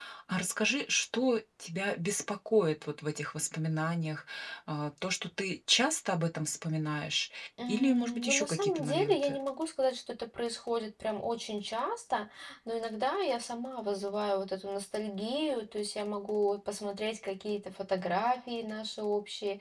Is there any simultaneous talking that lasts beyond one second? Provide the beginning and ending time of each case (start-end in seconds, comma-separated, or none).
7.7-9.4